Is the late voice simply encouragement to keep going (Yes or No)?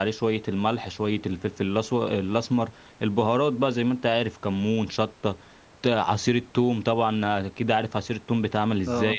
Yes